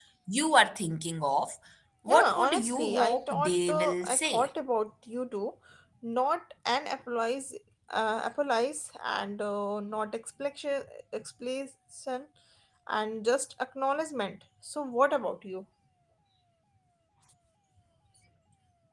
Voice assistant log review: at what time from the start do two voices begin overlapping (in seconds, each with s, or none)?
2.1 s